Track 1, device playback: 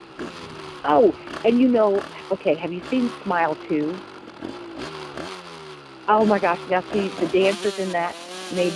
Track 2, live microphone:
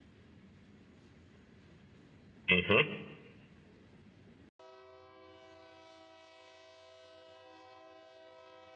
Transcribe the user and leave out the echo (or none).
hmm